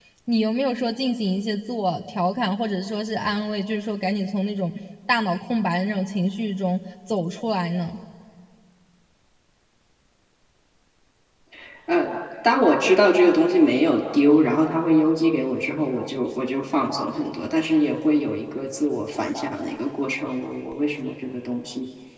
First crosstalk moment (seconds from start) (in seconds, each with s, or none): none